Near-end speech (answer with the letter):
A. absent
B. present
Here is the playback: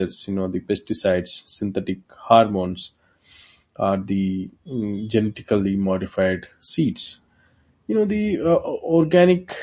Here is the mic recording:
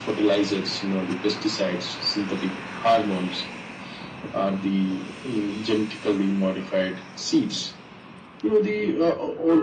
A